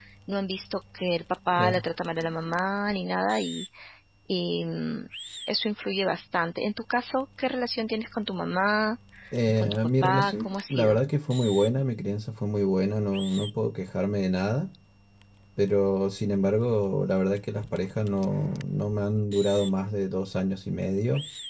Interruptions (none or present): present